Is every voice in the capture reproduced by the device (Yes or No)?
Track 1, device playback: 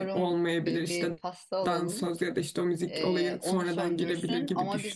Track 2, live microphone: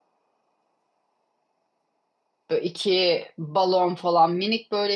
No